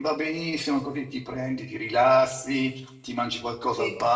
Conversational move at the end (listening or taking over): listening